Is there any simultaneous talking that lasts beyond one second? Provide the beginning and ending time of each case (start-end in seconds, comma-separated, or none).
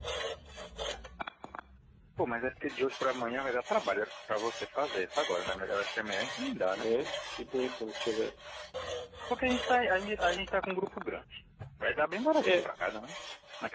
none